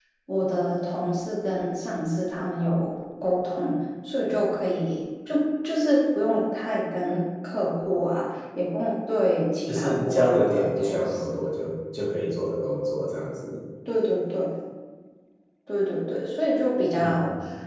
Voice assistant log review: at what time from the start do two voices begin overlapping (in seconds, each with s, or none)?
9.7 s